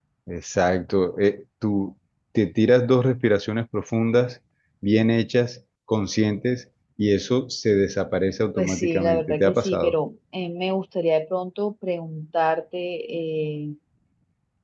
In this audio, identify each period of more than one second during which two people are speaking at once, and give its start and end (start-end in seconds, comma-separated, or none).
8.6-10.0